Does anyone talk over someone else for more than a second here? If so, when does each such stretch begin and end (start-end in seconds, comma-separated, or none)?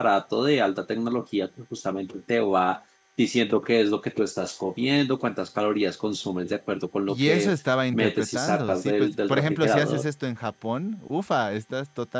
7.9-10.0